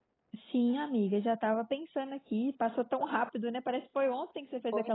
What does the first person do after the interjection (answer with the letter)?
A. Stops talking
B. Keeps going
A